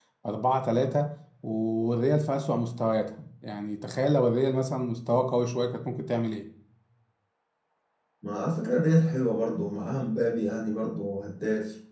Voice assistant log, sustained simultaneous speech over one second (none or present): none